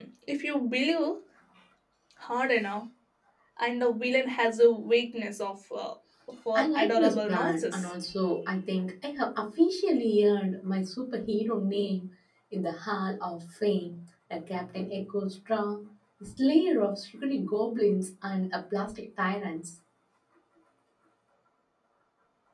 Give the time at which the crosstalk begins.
6.6 s

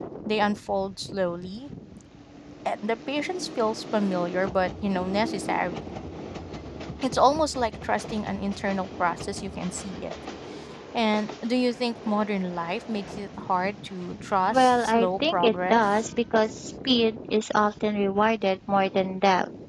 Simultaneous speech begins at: 14.5 s

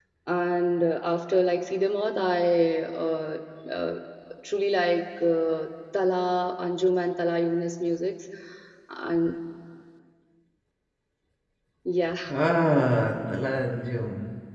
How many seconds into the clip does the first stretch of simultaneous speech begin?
none

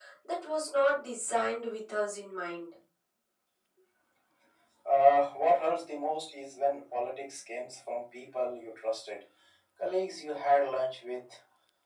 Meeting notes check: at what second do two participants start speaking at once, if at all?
none

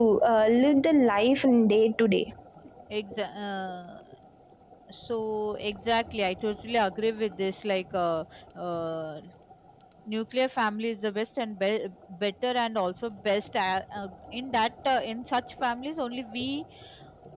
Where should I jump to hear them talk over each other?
none

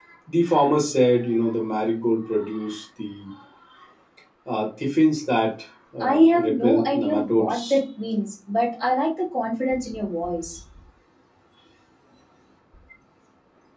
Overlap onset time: 6.0 s

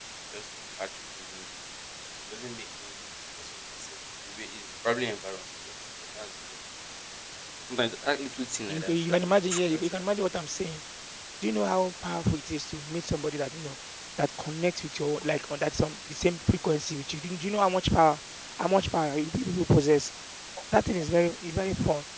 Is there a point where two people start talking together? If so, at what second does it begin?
8.7 s

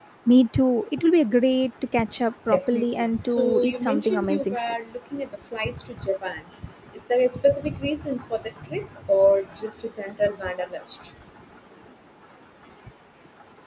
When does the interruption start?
2.5 s

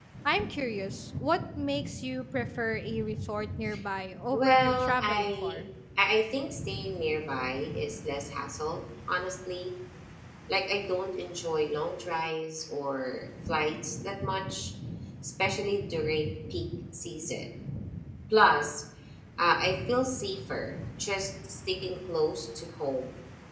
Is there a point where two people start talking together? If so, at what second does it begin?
4.3 s

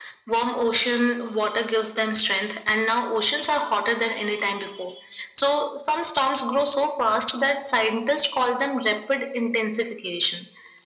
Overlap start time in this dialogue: none

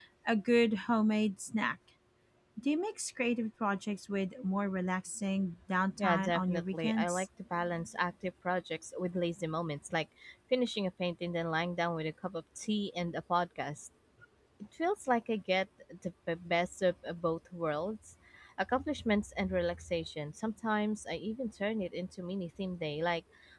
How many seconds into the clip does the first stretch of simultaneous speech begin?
6.0 s

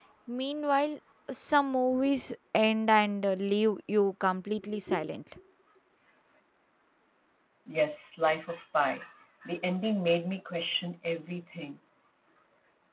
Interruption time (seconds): none

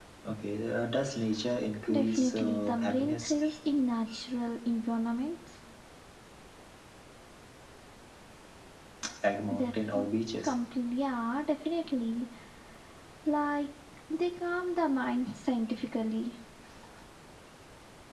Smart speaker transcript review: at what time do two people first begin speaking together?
1.9 s

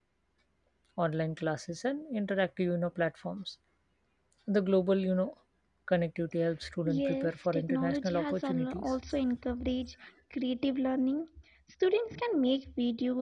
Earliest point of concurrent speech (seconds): 6.6 s

